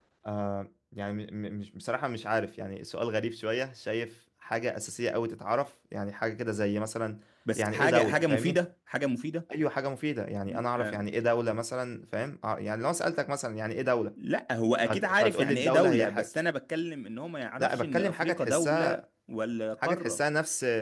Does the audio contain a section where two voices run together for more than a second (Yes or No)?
Yes